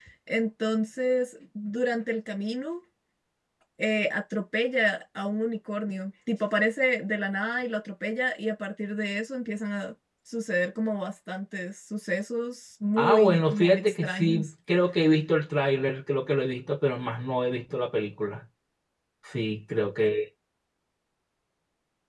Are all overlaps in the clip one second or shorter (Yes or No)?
No